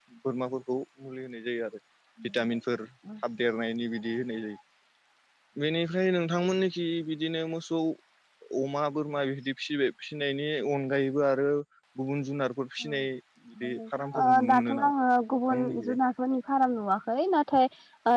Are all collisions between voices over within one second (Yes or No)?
No